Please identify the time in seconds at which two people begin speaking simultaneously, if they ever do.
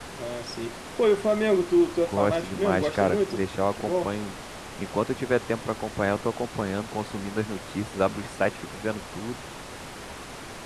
2 s

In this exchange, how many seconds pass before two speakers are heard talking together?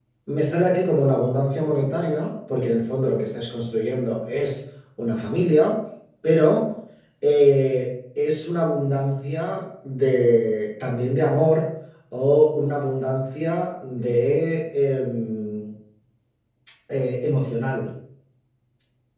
none

